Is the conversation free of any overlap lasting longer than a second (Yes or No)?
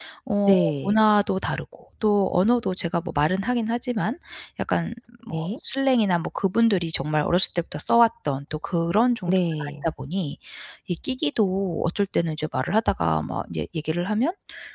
Yes